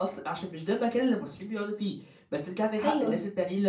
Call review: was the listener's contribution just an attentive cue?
Yes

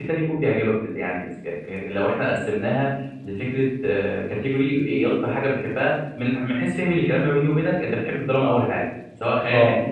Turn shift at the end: Yes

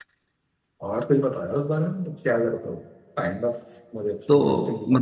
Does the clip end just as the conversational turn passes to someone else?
Yes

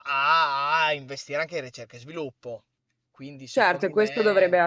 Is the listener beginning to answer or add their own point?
Yes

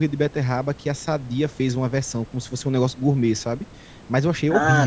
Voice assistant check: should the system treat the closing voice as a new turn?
Yes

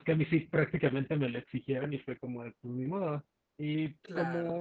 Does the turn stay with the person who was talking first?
Yes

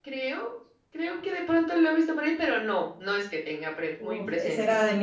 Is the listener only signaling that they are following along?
No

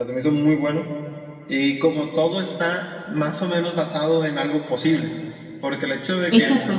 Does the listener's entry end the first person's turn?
No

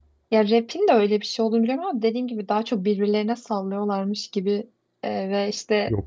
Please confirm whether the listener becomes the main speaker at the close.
No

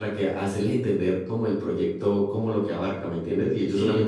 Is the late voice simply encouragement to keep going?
Yes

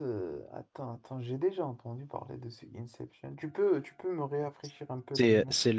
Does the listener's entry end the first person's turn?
Yes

